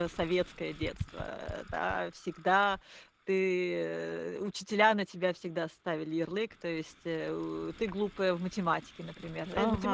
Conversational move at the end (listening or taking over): listening